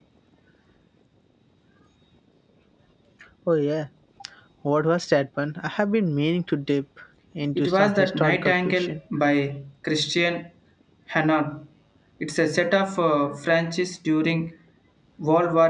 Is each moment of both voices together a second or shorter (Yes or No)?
No